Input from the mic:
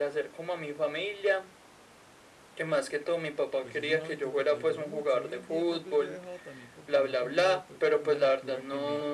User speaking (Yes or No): Yes